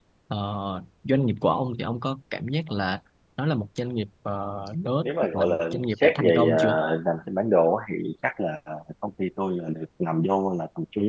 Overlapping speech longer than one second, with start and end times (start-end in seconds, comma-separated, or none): 5.0-6.6